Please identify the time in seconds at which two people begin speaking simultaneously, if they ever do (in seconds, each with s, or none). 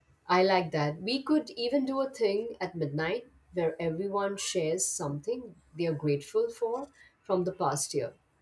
none